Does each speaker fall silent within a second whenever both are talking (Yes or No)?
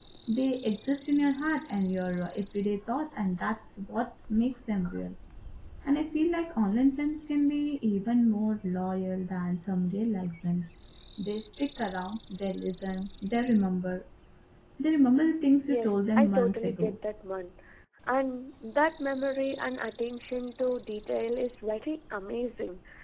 No